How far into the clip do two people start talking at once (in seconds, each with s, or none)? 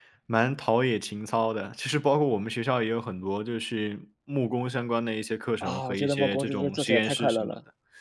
5.6 s